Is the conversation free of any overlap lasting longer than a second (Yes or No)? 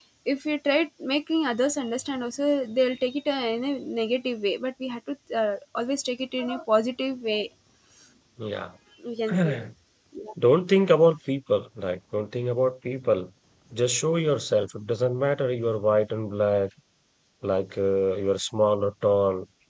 Yes